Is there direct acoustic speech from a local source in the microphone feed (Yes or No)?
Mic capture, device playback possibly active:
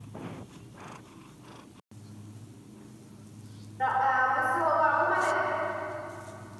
Yes